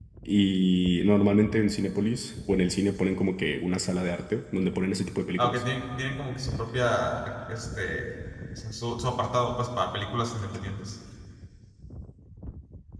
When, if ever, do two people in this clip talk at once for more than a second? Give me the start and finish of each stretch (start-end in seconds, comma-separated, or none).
none